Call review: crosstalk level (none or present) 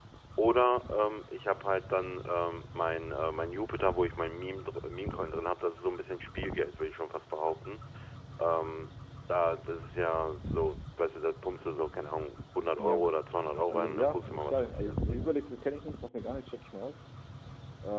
present